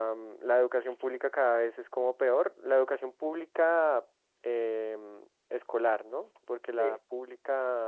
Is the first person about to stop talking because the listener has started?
No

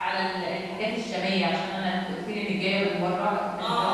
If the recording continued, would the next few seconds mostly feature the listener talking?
No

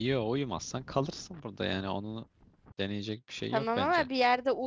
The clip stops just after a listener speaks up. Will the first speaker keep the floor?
No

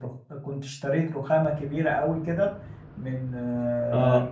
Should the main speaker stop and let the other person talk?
No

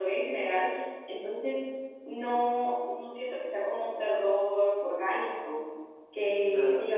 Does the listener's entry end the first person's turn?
No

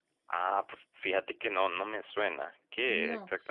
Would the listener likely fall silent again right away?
No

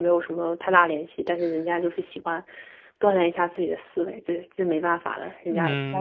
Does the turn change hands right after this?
Yes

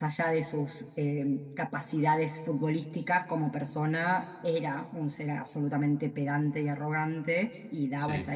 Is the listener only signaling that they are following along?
Yes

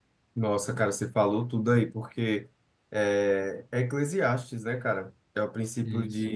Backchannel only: Yes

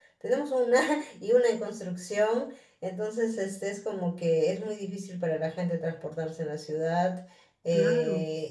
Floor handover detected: No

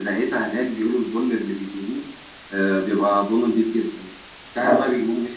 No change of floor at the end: Yes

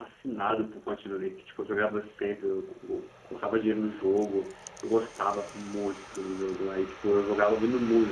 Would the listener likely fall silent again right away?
Yes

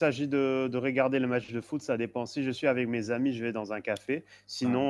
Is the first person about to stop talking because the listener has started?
No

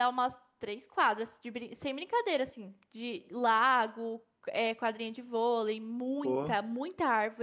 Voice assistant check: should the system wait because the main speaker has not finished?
Yes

